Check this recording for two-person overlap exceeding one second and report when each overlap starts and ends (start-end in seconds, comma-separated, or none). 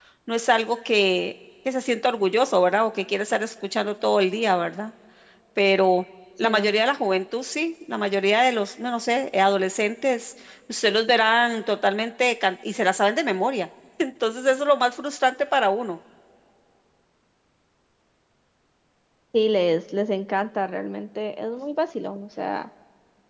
none